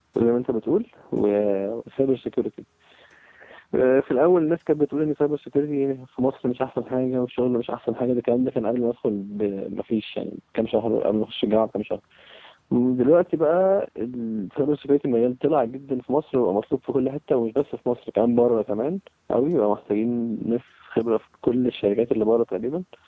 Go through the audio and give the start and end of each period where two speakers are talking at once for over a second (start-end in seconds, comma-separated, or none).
none